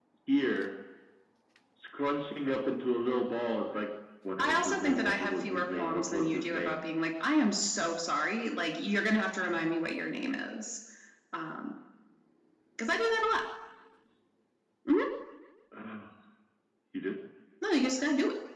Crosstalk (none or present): present